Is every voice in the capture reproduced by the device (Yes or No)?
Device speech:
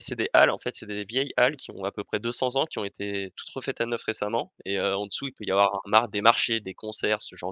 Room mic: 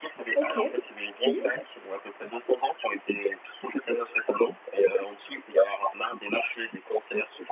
No